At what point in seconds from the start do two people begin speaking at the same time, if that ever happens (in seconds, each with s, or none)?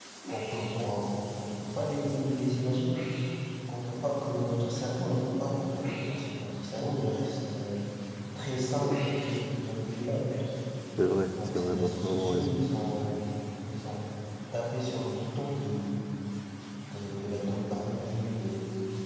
11.3 s